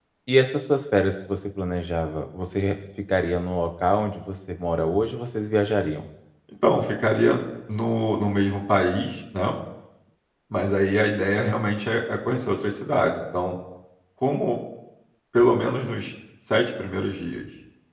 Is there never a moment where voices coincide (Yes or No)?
Yes